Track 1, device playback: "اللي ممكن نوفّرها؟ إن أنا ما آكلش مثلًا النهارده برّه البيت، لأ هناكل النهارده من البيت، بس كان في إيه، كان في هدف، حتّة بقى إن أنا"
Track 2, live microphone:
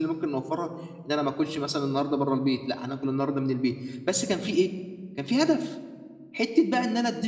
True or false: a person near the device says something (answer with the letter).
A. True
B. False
B